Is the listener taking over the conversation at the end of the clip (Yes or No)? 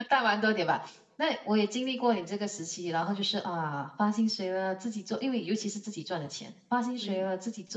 No